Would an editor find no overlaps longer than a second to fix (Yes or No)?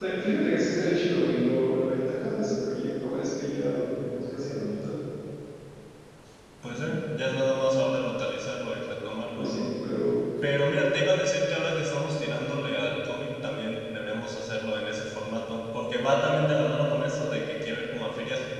Yes